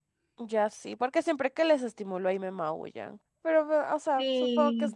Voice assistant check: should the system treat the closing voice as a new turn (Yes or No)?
Yes